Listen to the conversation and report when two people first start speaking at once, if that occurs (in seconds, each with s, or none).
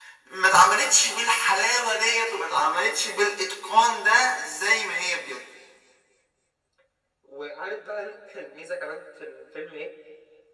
none